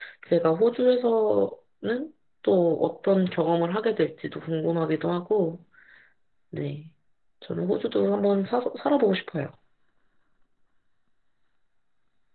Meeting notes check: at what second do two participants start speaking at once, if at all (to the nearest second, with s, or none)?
none